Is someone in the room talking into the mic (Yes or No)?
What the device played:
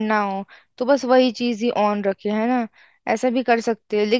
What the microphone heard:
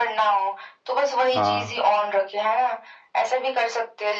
Yes